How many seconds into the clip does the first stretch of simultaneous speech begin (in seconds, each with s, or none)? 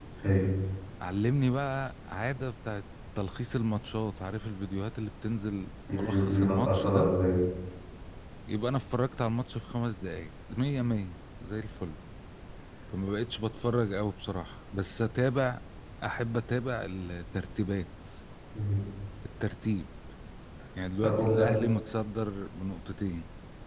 5.9 s